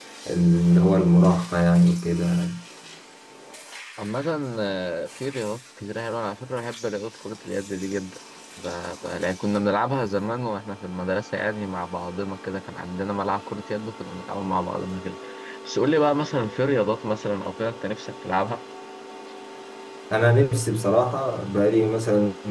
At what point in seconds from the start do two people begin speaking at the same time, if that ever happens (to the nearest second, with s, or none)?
none